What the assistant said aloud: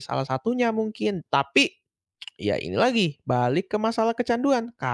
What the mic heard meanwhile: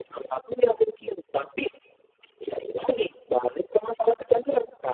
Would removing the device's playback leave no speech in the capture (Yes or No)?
Yes